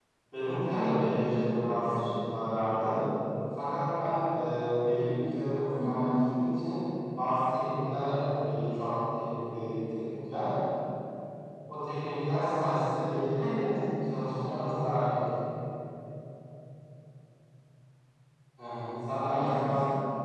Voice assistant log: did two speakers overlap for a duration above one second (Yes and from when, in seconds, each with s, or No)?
Yes, from 0.8 s